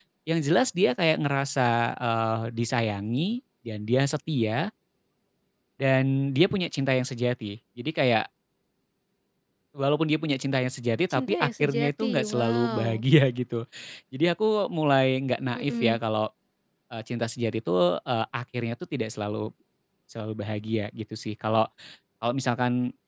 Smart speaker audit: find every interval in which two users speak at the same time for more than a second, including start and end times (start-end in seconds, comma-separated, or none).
11.1-12.8